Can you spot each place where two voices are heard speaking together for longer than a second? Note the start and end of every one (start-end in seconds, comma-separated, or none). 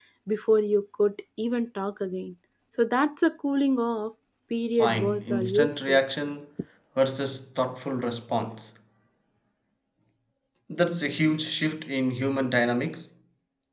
4.8-6.0